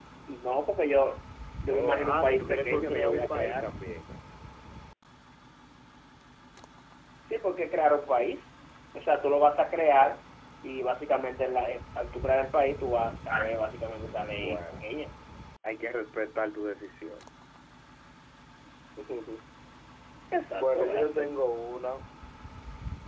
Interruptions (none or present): present